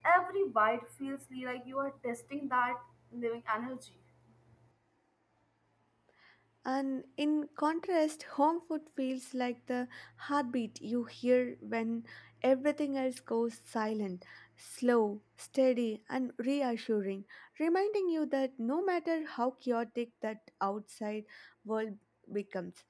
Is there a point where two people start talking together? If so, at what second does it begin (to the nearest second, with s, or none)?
none